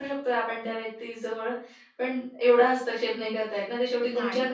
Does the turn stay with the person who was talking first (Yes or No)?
Yes